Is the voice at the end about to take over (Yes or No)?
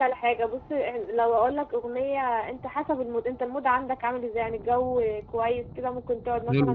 No